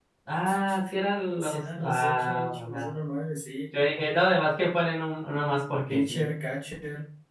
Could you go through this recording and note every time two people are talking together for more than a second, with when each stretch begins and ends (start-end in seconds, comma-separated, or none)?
1.4-2.9